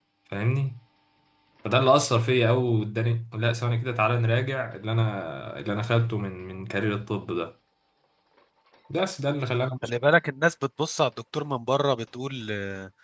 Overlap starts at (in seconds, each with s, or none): none